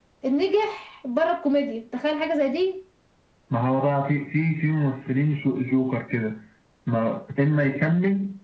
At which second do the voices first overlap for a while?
none

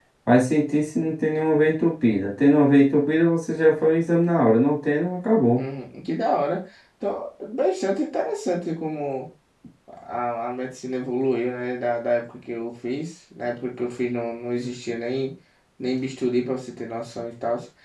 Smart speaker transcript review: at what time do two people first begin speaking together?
none

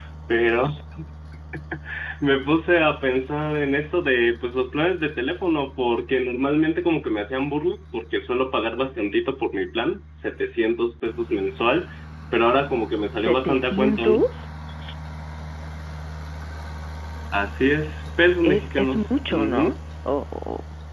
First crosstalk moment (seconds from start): 13.1 s

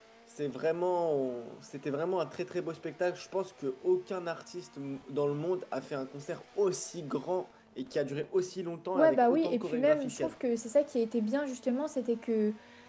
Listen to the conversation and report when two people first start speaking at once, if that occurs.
8.9 s

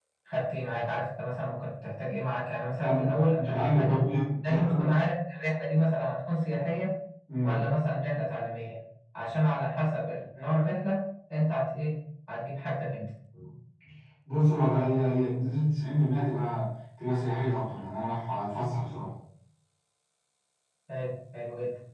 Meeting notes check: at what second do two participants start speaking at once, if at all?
2.8 s

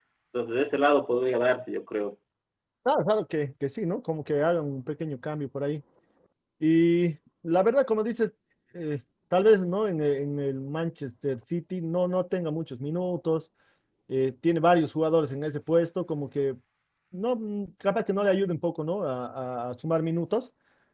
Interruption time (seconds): none

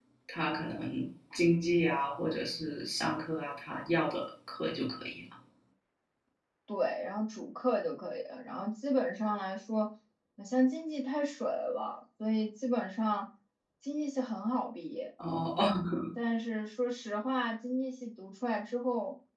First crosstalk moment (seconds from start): none

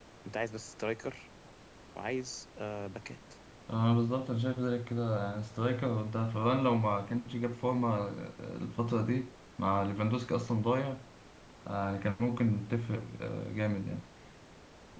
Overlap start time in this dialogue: none

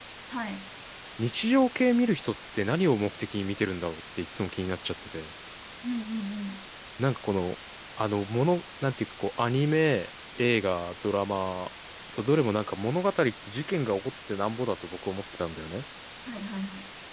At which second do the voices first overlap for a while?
none

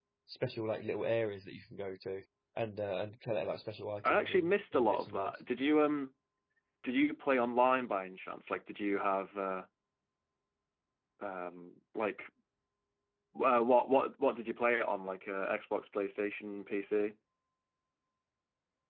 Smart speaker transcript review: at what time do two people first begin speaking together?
4.0 s

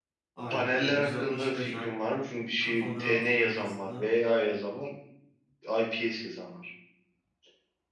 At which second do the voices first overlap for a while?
0.5 s

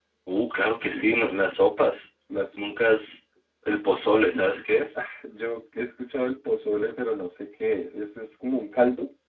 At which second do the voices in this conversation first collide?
none

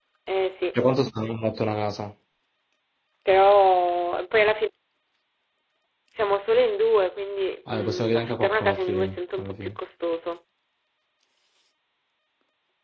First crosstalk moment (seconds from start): 7.7 s

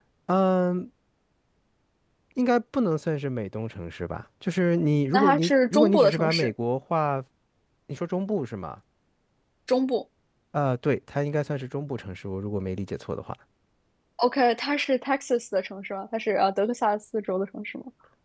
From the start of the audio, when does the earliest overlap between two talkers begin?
5.1 s

